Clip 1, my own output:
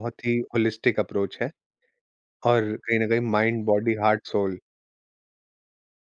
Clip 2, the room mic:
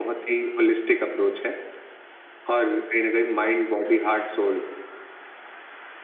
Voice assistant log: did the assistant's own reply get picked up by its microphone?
Yes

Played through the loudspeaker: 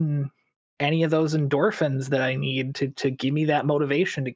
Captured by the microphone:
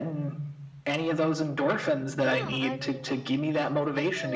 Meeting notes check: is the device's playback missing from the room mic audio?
No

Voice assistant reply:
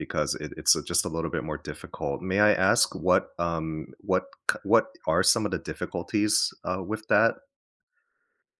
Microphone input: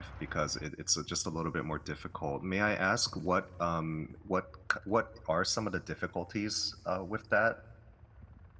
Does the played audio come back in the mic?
Yes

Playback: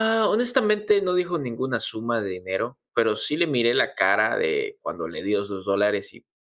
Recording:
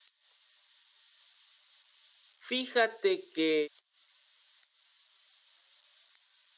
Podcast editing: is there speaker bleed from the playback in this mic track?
No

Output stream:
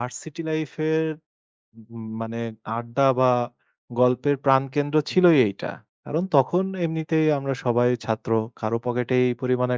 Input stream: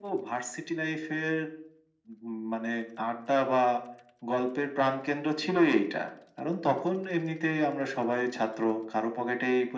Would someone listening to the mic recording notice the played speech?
Yes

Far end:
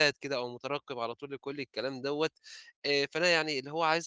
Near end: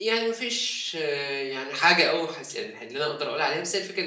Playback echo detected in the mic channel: No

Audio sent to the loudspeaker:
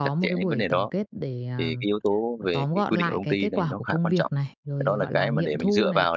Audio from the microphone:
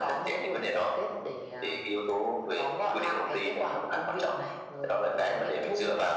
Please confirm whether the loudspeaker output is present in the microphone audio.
Yes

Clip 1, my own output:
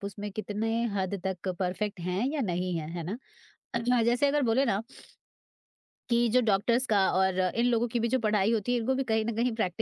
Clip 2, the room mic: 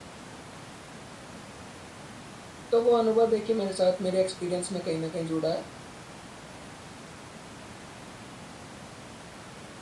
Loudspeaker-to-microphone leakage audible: No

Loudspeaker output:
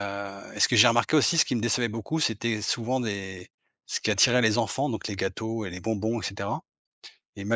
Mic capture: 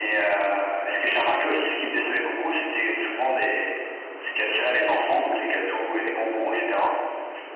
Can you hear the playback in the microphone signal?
Yes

